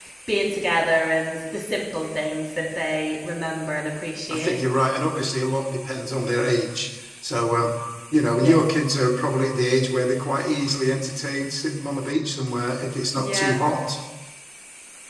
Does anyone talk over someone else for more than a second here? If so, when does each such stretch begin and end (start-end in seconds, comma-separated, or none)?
none